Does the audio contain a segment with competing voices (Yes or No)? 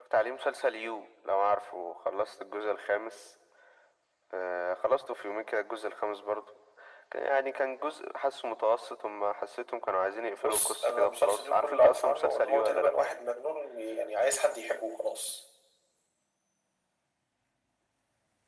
Yes